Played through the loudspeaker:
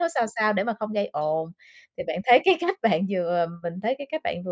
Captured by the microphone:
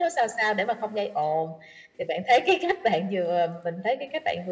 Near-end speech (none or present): none